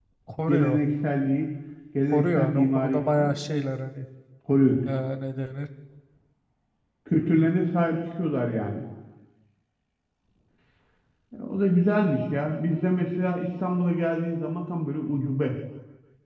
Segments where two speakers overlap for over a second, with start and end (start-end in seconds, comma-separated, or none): 2.1-3.3